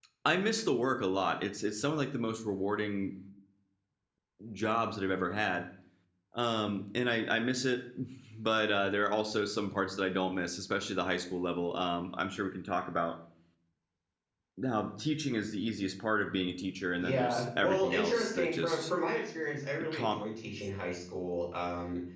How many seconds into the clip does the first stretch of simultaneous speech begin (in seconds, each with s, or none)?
17.0 s